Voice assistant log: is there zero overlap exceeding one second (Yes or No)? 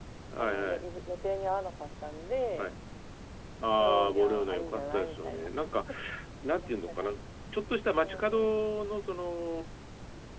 No